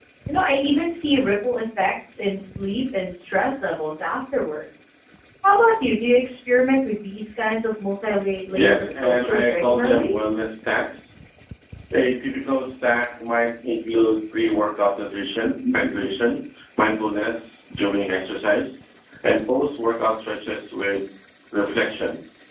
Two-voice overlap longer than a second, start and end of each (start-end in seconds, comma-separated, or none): 8.6-10.2